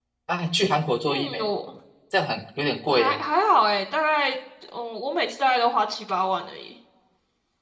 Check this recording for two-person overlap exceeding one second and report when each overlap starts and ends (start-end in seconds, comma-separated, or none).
none